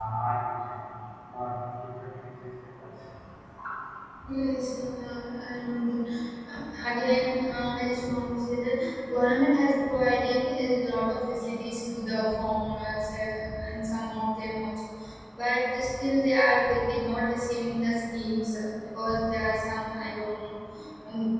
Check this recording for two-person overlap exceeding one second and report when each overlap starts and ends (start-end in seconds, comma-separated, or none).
none